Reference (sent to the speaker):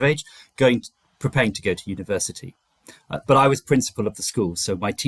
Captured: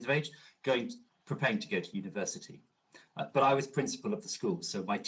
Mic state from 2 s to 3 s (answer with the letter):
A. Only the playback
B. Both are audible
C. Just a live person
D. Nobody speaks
A